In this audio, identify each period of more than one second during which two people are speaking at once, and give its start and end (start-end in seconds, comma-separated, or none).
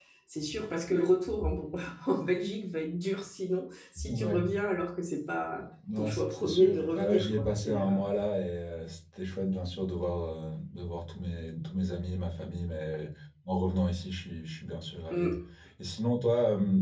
6.0-8.0